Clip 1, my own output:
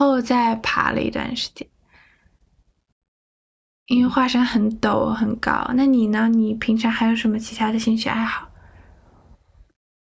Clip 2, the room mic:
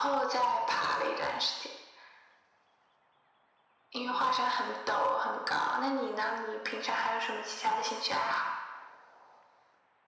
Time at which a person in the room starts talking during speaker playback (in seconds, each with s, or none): none